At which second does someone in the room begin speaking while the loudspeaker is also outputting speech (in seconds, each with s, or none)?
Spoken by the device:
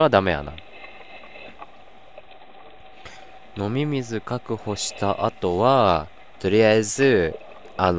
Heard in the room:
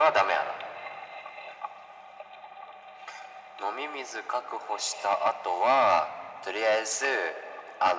none